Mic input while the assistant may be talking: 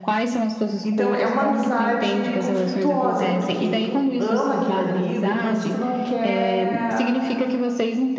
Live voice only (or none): Então, é uma amizade conflituosa, porque tu ama aquele amigo, mas tu não quer